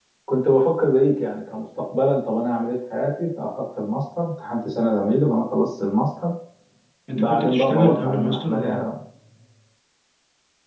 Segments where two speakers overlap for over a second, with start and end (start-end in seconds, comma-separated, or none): 7.2-8.9